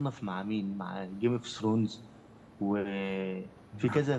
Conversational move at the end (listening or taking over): listening